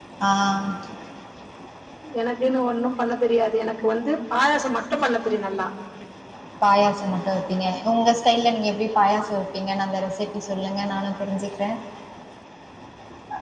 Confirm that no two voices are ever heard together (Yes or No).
Yes